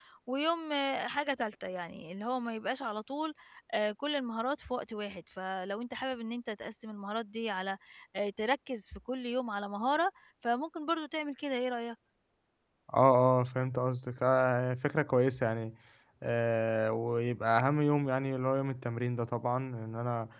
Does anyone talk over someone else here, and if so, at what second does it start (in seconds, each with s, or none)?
none